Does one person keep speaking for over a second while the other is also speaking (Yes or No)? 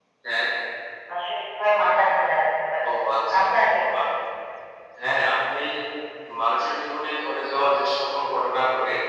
No